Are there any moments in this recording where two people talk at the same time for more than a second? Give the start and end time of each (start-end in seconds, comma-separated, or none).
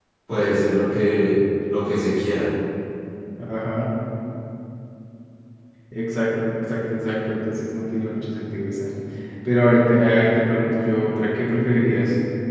none